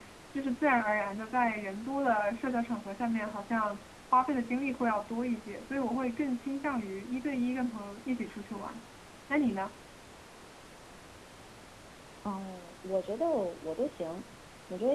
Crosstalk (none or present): none